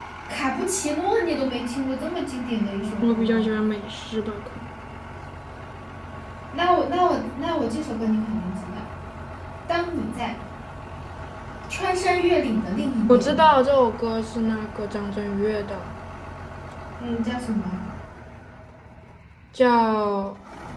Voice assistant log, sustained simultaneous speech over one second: none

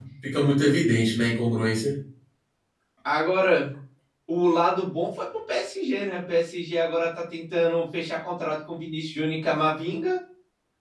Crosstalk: none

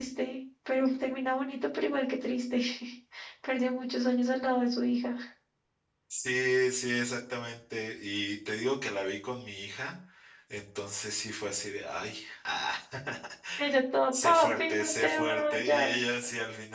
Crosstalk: present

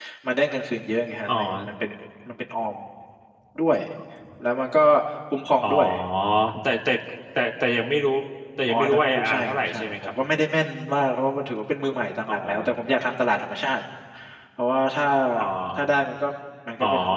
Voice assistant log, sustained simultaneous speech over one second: present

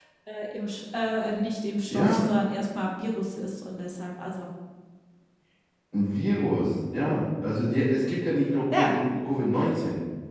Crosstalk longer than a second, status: none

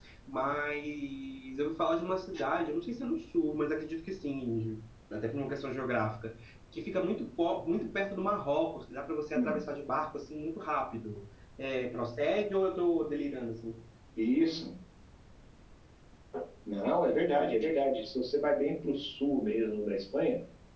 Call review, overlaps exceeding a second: none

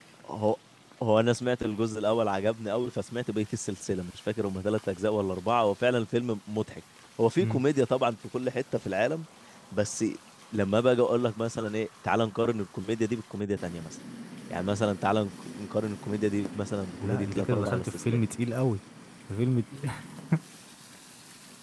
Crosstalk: present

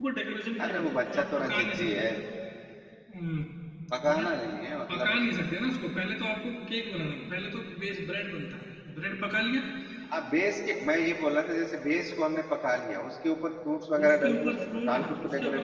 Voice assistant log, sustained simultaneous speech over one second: present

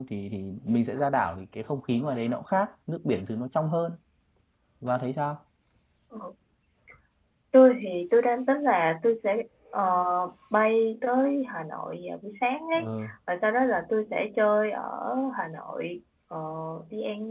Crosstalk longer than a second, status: none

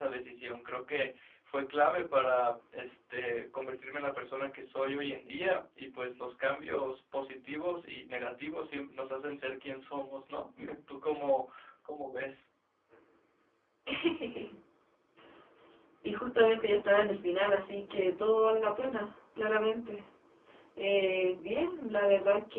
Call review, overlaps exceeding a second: none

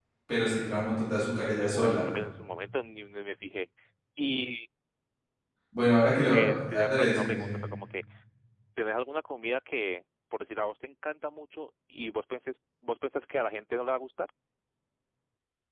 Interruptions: present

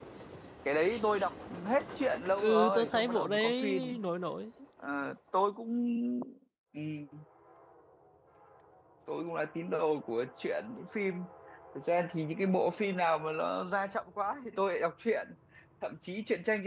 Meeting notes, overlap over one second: present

